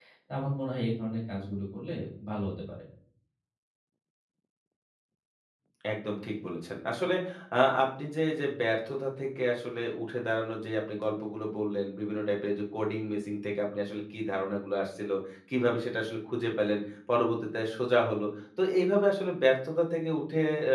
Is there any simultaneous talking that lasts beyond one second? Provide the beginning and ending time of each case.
none

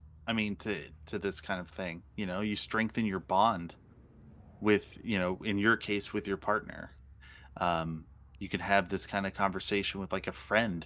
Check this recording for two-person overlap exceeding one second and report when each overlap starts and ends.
none

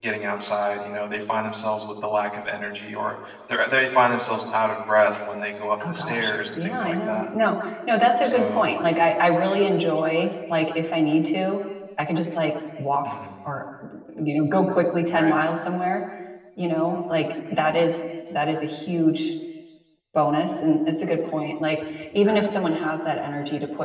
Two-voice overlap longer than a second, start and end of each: 5.9-7.3

